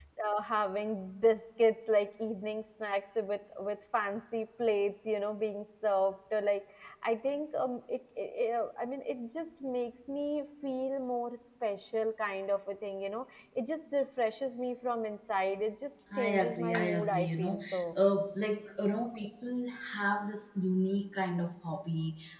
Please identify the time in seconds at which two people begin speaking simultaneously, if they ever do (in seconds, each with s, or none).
16.1 s